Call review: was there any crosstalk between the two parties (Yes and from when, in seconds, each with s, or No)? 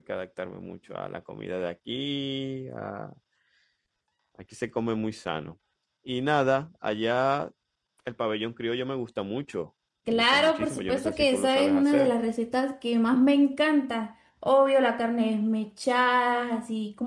Yes, from 10.1 s